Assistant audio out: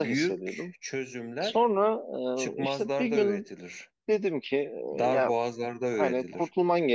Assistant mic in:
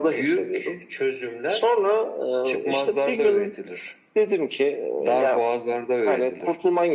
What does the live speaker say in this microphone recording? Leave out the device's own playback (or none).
none